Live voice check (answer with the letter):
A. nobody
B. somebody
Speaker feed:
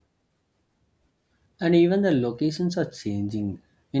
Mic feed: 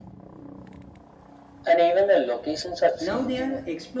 B